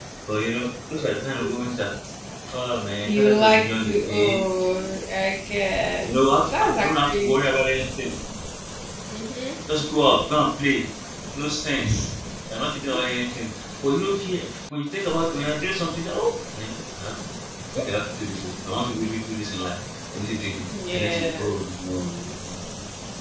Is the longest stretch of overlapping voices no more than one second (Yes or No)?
No